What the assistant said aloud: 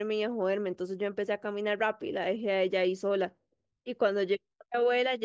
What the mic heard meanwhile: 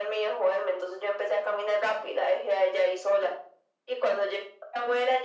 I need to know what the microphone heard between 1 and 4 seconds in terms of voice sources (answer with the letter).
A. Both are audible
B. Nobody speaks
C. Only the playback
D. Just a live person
C